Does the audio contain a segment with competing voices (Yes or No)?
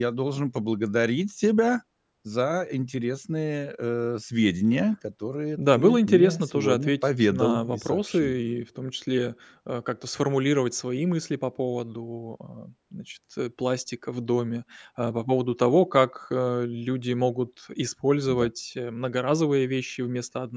Yes